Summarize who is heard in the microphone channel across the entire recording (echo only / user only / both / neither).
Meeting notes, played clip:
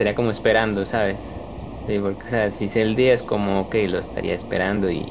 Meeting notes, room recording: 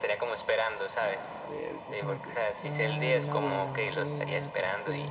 both